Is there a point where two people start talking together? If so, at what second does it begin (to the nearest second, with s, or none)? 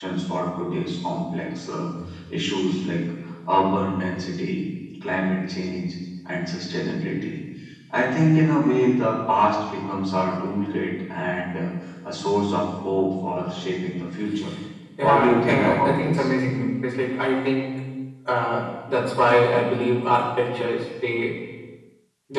15 s